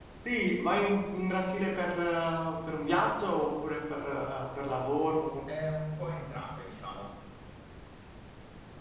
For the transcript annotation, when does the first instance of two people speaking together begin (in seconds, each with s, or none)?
none